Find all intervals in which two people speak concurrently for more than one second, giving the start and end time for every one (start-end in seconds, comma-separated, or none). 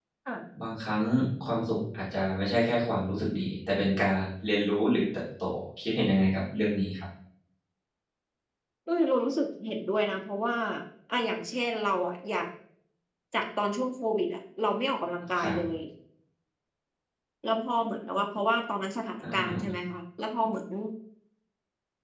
none